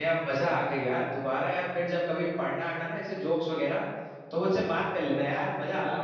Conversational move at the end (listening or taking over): taking over